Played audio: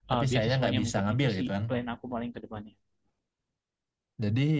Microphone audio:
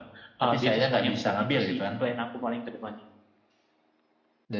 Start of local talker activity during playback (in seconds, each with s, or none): none